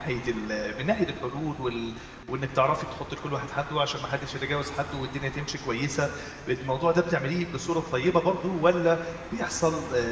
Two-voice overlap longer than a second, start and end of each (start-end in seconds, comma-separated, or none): none